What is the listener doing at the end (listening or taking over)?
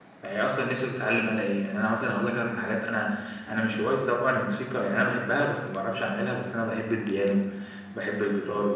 listening